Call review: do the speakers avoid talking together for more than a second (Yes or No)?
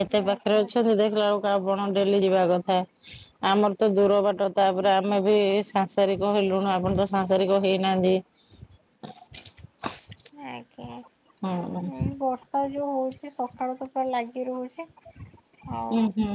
Yes